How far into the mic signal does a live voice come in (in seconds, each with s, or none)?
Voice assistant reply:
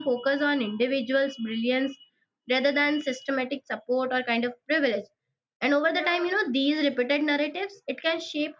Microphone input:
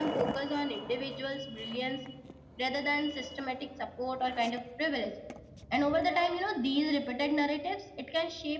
none